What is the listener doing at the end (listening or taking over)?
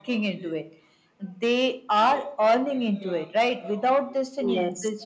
listening